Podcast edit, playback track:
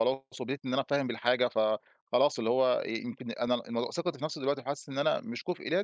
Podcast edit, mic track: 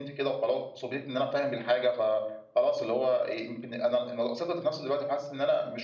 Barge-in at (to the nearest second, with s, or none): none